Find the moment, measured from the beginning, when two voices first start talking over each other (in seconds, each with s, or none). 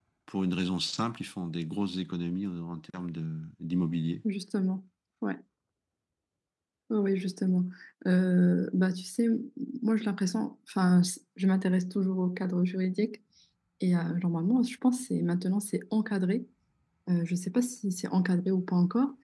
none